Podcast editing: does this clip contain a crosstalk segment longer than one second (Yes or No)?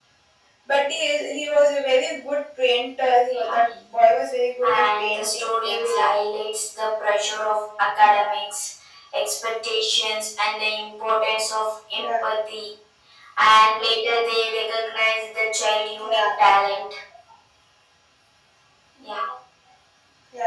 Yes